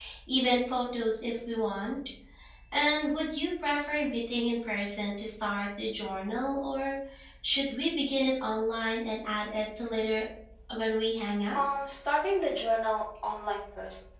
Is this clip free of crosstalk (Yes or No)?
Yes